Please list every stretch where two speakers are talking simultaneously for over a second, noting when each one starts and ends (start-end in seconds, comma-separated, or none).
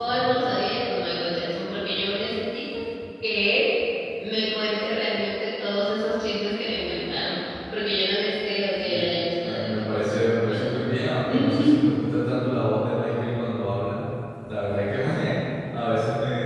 8.8-10.8